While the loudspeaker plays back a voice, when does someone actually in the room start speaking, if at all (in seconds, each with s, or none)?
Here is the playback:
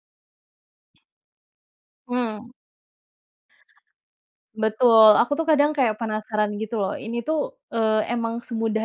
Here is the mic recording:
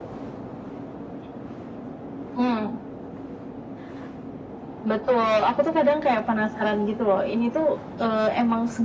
none